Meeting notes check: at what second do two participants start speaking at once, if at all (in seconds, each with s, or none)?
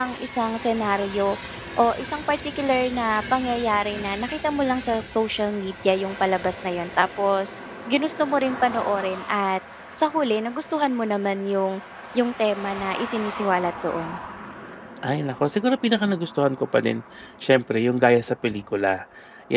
none